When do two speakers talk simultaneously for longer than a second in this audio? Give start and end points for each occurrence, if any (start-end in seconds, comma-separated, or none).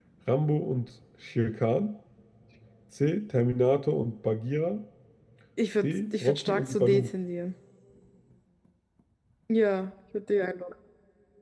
5.8-7.1